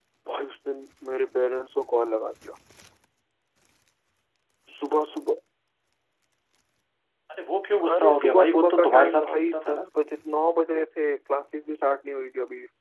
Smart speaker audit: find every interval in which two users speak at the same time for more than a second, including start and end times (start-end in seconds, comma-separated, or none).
7.9-9.8